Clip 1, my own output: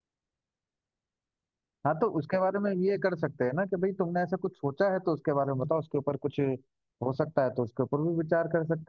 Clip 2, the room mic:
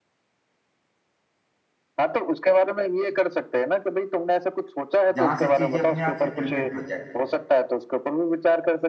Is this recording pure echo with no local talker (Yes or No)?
No